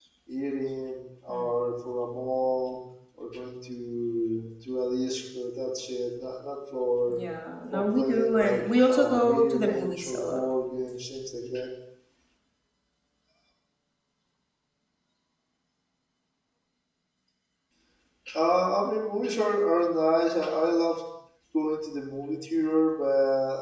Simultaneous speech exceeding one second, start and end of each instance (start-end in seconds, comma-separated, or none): 7.7-10.4